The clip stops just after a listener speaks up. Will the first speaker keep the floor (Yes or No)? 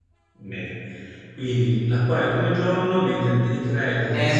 No